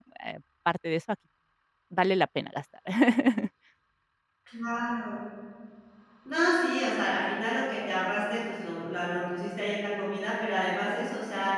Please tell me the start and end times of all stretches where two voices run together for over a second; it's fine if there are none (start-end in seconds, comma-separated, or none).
none